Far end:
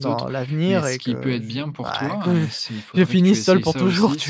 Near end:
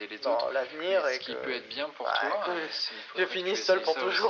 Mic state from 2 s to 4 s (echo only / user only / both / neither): echo only